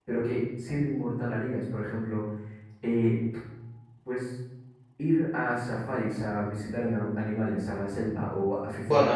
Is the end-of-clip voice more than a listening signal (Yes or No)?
Yes